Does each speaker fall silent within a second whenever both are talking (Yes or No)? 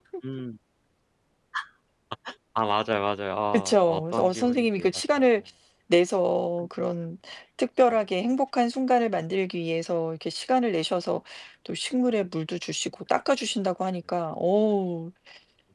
No